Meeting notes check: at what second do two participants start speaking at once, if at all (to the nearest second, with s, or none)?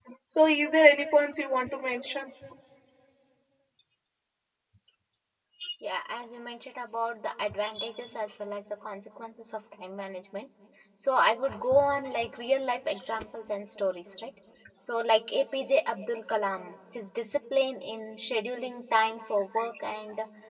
none